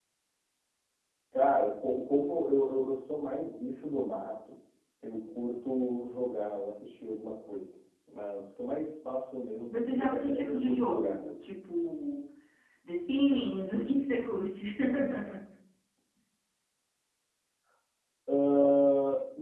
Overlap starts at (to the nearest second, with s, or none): 10 s